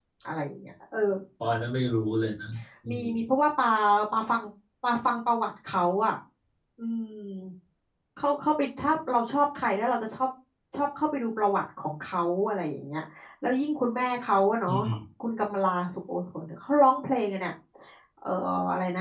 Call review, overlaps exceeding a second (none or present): none